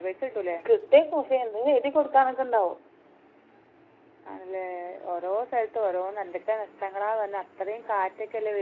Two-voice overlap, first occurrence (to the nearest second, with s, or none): none